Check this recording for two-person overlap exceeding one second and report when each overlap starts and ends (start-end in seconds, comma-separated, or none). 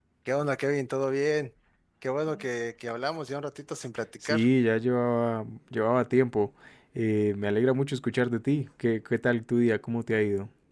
none